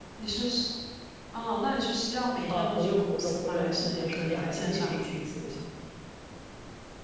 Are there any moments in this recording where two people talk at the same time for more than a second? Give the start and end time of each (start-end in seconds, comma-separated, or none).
2.5-5.0